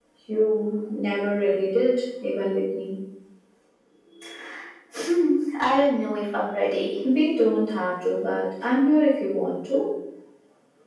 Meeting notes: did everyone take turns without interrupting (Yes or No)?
Yes